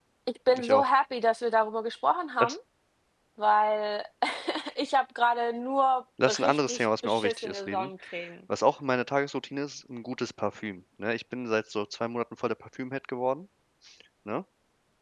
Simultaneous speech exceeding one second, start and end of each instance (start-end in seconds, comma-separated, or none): 6.3-7.9